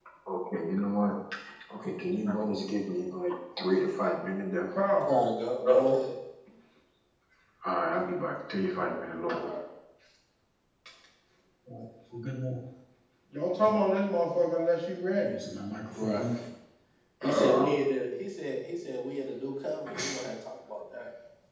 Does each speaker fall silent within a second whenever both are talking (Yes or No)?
Yes